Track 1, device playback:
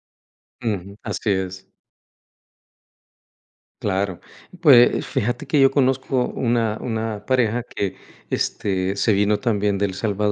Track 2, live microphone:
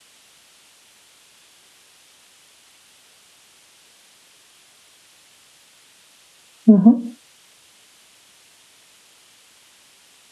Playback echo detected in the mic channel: No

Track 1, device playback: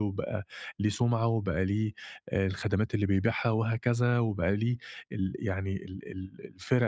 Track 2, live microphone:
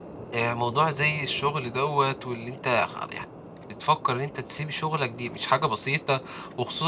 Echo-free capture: Yes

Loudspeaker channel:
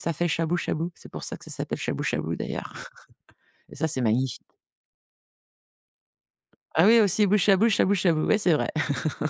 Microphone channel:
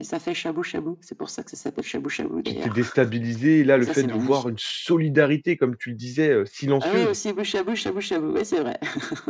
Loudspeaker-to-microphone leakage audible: Yes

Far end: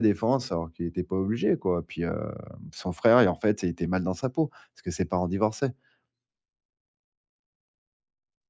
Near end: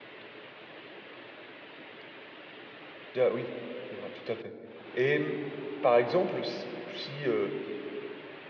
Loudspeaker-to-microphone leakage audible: No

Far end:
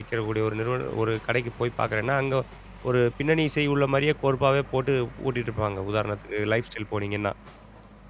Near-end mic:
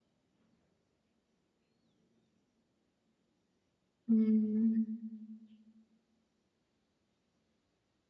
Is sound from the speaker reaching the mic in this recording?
No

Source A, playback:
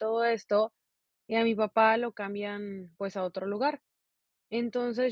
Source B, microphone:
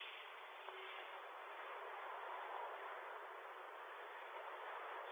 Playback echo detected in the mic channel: No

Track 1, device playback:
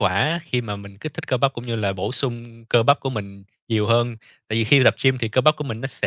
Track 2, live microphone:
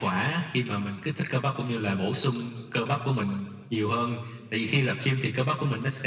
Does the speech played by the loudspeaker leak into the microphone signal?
Yes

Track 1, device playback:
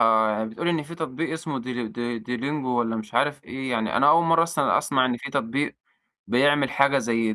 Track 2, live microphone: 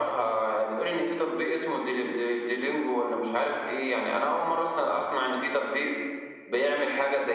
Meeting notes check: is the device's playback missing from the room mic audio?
No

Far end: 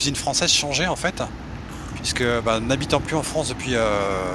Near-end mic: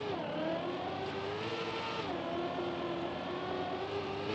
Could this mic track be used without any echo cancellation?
Yes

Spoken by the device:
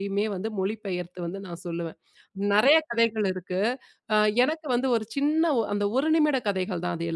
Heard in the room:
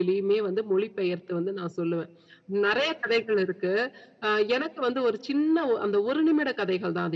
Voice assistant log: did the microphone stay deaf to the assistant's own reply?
No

